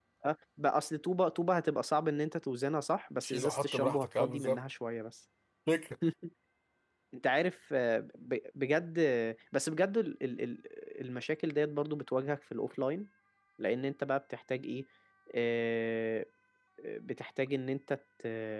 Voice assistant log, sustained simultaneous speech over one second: present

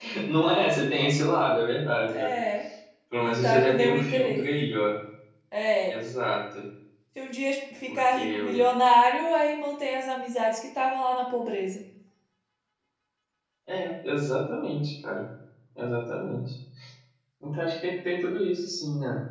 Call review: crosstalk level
present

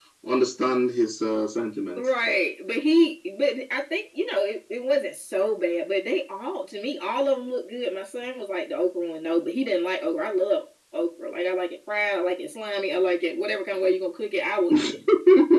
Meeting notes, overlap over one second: none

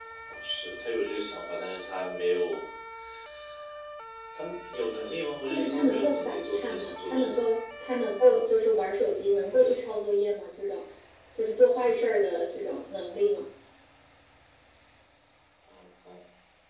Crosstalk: present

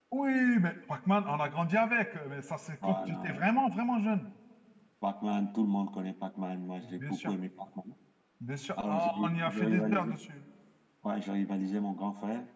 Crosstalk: present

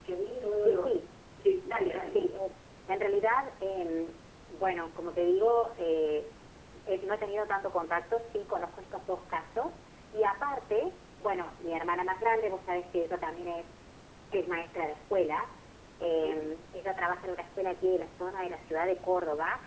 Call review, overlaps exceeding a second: none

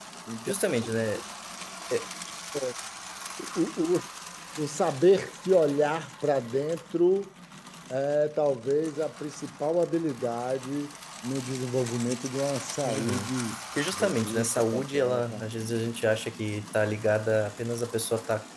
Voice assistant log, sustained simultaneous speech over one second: present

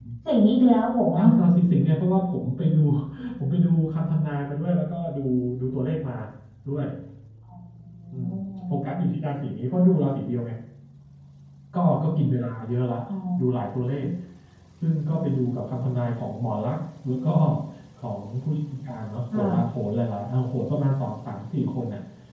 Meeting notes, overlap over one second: none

